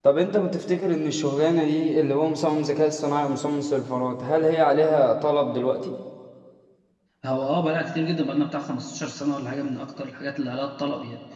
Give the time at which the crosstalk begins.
none

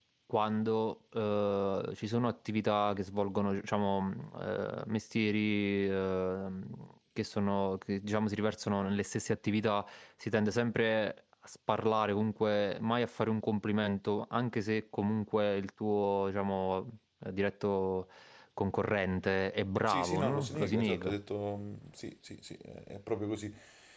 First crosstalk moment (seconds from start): 19.9 s

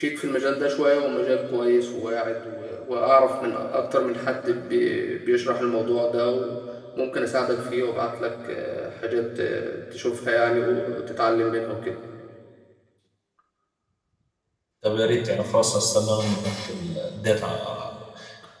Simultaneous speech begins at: none

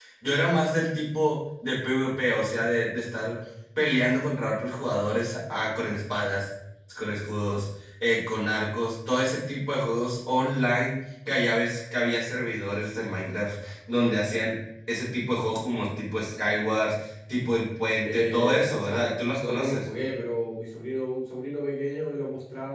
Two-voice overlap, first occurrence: 18.0 s

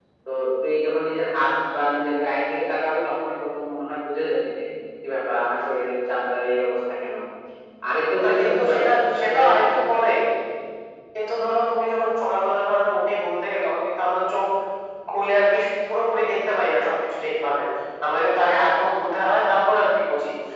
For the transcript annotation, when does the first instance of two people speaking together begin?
8.2 s

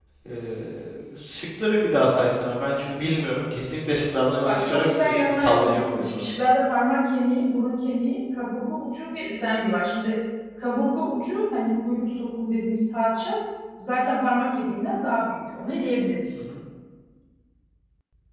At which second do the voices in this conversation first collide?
4.5 s

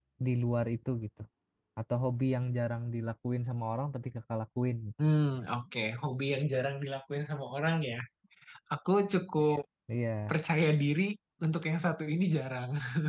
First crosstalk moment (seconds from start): none

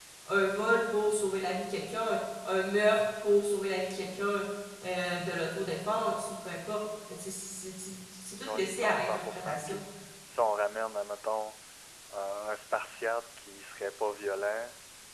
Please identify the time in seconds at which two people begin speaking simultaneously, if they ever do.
8.4 s

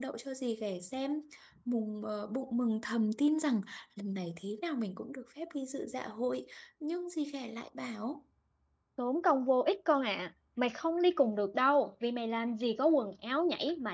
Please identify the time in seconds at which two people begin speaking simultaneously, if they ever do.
none

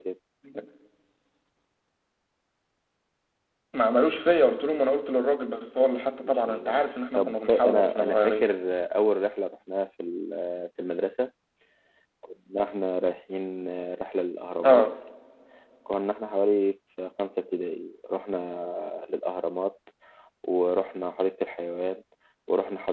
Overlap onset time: 6.2 s

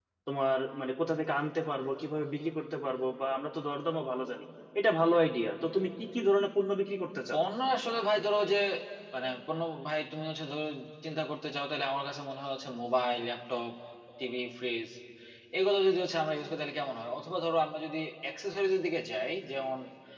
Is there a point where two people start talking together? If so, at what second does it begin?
none

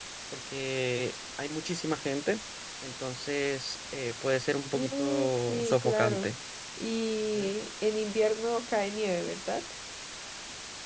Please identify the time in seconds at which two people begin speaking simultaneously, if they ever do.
4.7 s

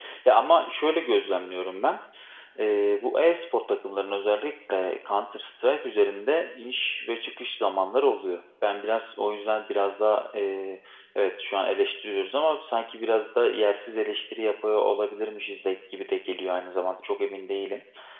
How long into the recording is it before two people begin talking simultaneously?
none

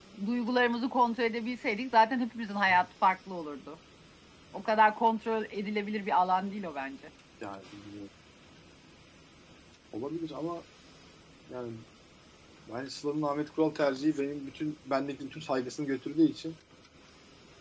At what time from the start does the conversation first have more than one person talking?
none

